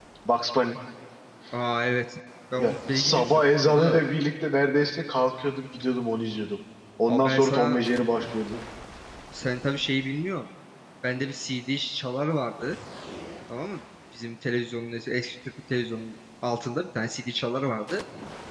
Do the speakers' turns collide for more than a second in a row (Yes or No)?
Yes